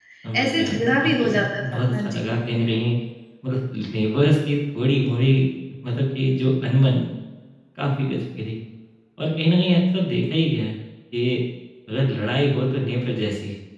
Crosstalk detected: Yes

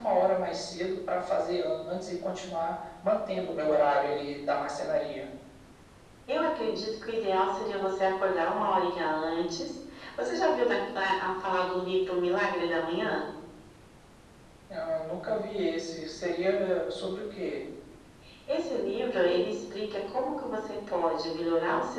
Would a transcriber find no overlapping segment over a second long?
Yes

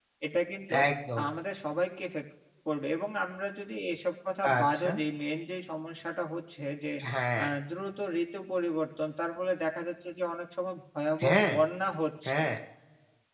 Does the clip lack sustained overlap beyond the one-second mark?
Yes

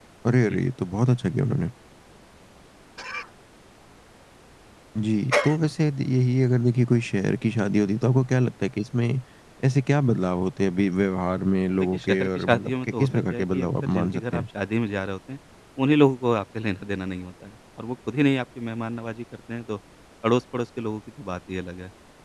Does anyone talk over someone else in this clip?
Yes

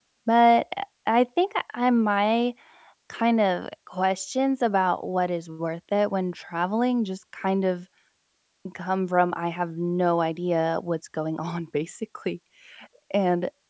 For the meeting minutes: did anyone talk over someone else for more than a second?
No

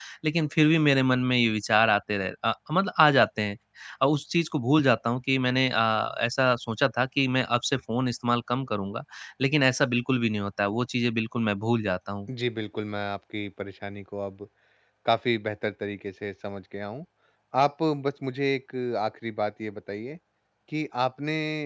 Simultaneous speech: No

